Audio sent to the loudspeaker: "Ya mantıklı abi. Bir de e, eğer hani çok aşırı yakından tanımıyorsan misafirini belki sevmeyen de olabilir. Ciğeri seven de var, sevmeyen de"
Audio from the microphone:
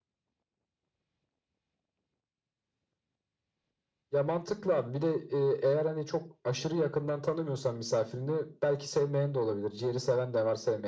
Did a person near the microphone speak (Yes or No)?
No